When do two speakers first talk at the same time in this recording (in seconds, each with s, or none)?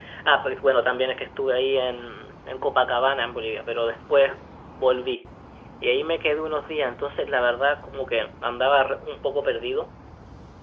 none